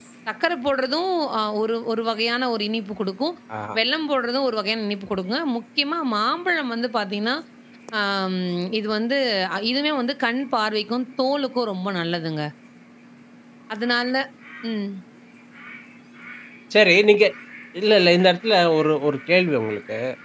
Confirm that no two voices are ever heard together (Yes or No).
Yes